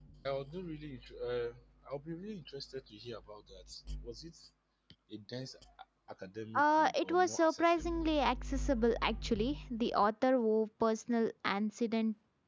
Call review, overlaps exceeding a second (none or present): present